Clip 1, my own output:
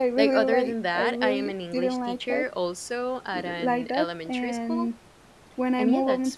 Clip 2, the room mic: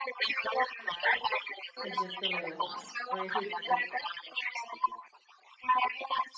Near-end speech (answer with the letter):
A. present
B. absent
A